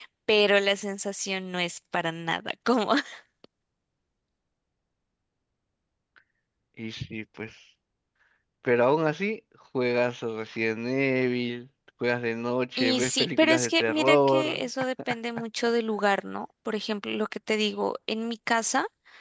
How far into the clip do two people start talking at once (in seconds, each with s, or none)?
12.8 s